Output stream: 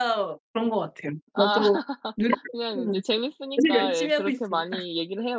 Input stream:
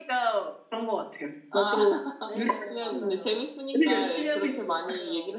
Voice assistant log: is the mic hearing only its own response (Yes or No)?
No